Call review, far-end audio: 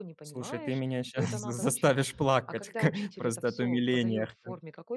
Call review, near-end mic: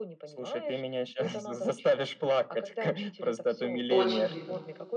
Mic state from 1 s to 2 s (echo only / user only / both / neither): echo only